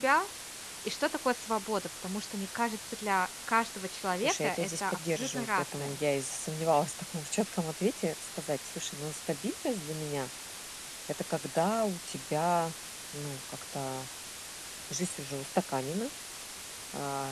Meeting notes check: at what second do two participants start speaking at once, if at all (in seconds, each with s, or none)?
4.2 s